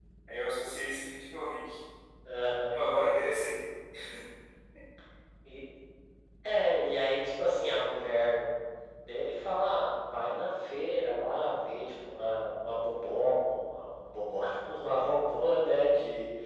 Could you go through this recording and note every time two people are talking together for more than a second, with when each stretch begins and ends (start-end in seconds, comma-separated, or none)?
none